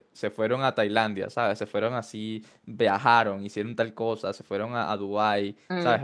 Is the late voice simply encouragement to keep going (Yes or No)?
Yes